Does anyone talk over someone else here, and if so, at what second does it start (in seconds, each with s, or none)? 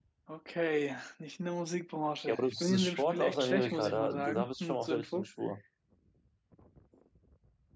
2.3 s